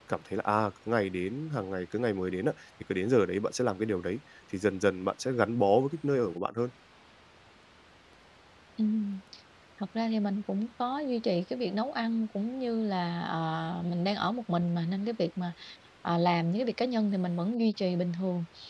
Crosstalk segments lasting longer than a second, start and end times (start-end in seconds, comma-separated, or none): none